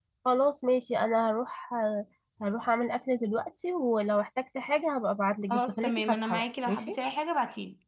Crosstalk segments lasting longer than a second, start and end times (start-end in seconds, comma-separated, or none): 5.5-7.0